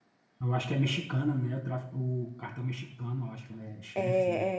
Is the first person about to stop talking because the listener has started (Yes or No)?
Yes